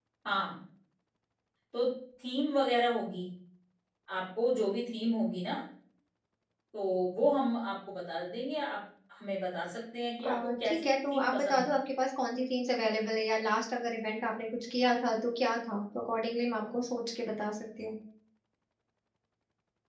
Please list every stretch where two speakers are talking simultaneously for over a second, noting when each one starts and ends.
10.2-11.8

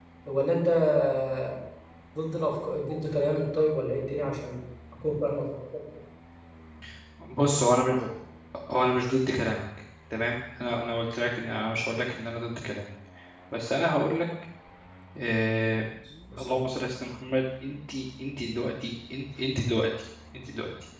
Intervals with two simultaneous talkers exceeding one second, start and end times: none

